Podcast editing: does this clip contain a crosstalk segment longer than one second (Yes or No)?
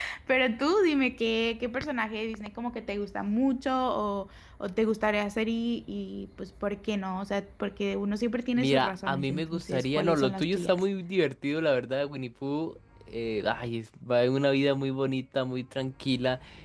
Yes